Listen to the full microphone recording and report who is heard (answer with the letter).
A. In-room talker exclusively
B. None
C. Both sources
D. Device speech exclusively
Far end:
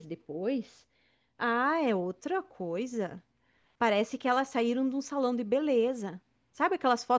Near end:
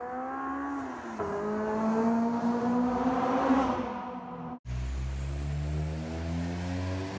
B